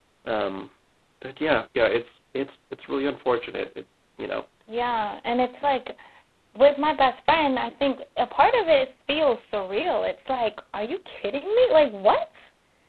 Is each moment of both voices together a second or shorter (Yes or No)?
Yes